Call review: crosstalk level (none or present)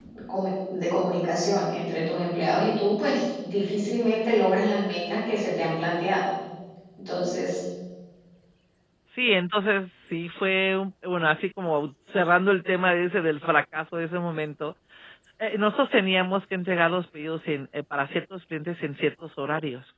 none